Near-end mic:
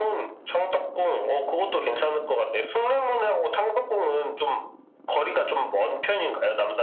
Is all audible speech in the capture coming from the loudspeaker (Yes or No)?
Yes